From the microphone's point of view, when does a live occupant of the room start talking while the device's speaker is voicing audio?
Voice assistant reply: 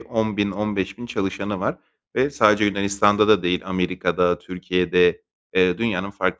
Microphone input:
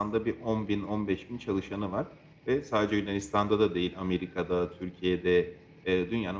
none

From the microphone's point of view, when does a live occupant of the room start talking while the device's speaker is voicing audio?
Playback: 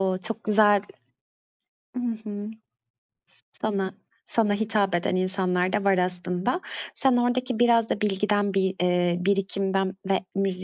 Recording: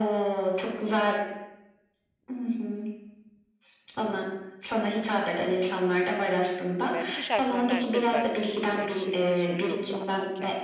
6.8 s

